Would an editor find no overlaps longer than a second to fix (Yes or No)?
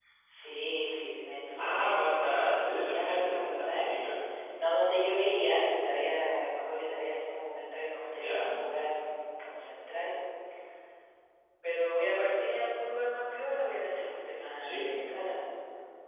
No